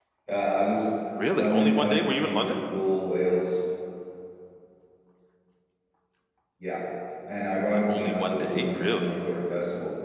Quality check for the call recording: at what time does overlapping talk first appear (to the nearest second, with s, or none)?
1 s